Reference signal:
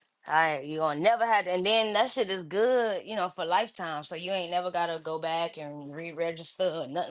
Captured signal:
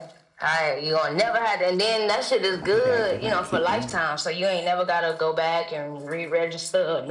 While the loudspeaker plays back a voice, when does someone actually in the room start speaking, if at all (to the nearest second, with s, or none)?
3 s